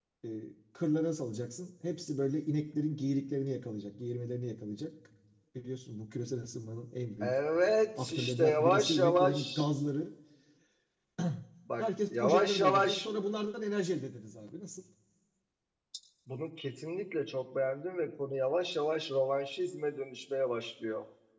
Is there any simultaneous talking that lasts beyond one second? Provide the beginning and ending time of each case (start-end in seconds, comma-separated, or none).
8.0-9.7, 11.8-13.1